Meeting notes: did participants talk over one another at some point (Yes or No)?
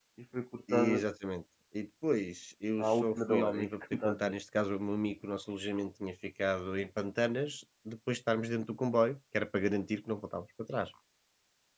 Yes